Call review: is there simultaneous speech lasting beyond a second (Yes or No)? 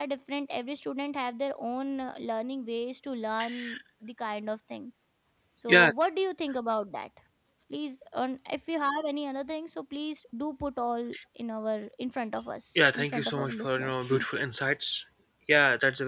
Yes